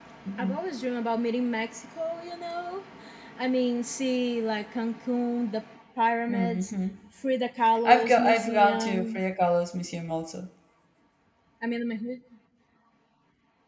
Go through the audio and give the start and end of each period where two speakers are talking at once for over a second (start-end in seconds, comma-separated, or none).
7.8-9.2